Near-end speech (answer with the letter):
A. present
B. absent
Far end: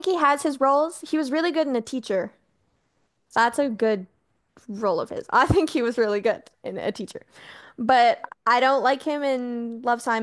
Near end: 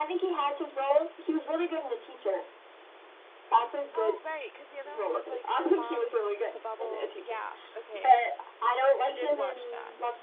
A